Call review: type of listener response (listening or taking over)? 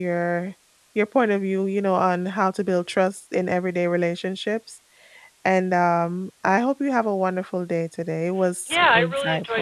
taking over